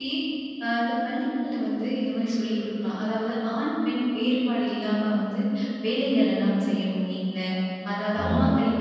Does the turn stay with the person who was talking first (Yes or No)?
Yes